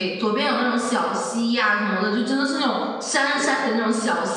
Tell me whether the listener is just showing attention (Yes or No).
Yes